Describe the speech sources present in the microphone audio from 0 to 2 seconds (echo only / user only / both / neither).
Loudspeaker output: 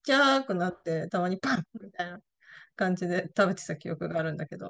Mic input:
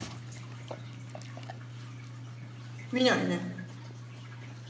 neither